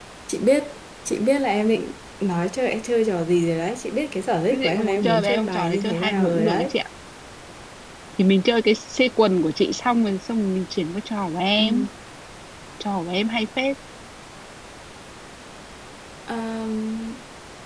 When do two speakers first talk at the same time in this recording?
4.5 s

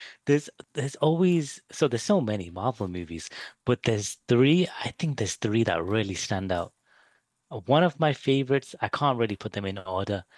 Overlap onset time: none

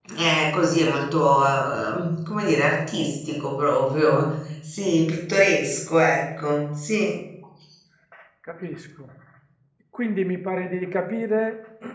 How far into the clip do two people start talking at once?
none

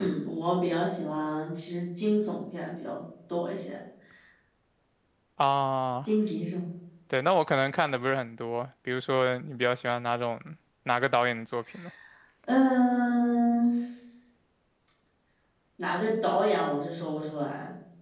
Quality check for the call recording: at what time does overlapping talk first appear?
none

